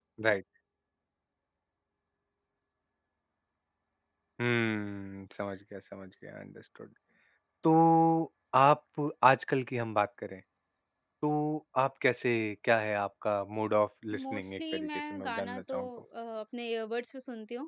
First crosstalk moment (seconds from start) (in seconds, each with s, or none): 14.1 s